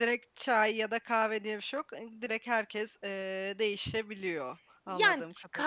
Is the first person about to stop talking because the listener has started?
Yes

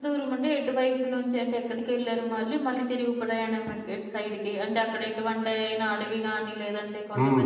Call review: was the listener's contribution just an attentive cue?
No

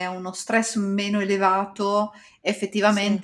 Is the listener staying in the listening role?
Yes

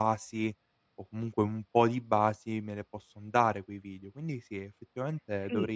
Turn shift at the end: Yes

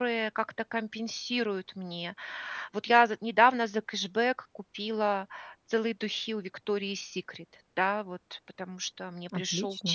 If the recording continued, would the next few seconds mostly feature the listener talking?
No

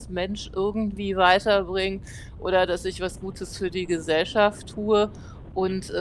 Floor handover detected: No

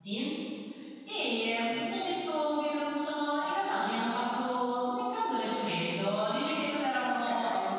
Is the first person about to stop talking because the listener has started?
No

